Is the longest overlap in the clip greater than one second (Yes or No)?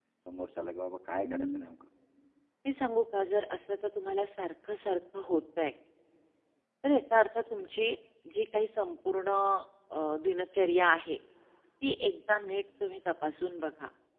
No